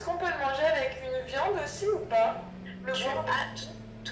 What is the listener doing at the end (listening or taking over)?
taking over